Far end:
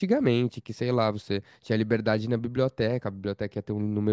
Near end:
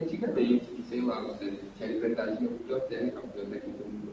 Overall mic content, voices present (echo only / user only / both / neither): echo only